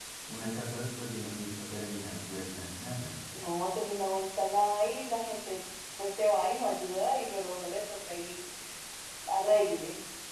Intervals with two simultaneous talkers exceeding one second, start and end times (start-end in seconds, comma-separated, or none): none